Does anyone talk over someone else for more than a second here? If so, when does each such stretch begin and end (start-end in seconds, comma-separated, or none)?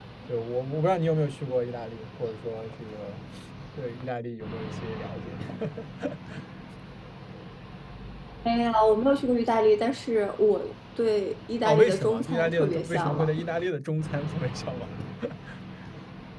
11.6-13.3